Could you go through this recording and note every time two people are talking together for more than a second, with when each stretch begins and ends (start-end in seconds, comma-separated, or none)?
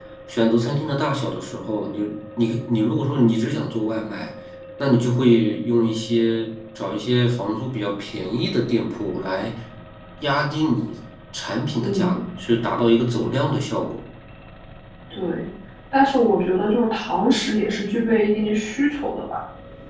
none